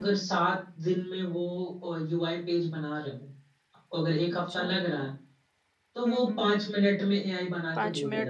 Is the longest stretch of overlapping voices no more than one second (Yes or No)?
Yes